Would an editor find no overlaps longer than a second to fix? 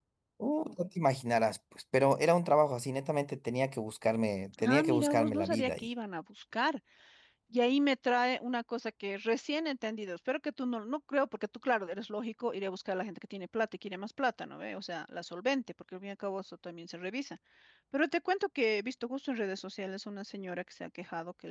No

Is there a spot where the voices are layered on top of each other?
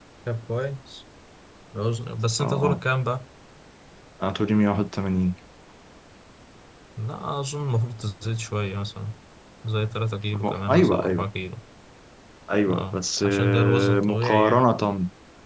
Yes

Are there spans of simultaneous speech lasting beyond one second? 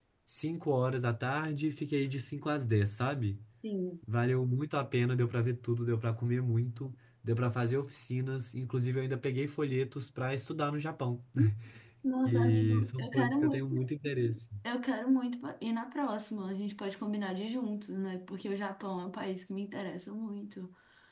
Yes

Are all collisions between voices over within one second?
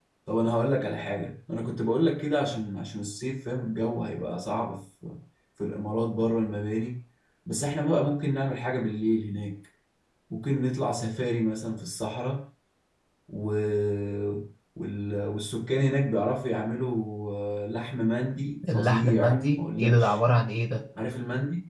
No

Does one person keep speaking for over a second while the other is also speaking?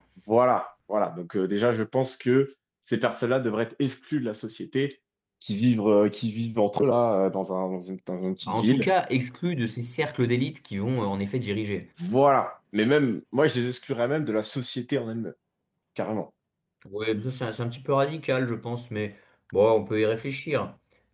No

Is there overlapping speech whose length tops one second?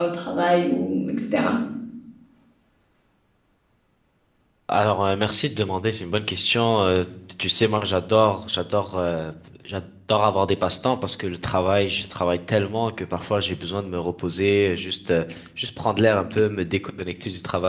No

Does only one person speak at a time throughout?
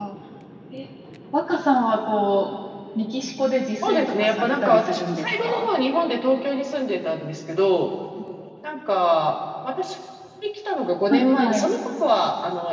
No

